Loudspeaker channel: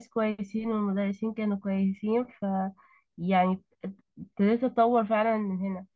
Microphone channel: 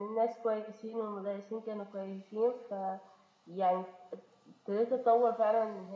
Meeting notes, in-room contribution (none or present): none